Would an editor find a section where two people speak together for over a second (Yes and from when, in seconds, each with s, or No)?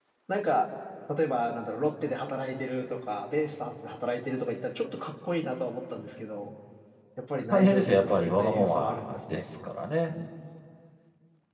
Yes, from 7.5 s